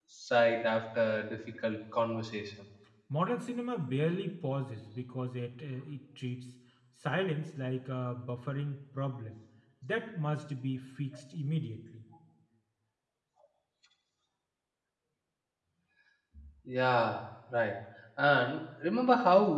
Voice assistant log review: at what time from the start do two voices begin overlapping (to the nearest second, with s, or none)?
none